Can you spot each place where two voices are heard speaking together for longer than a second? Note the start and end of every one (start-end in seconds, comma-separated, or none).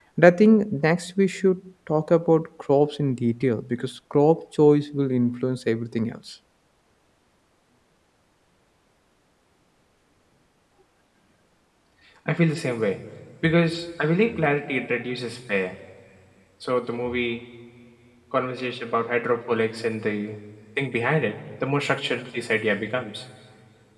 none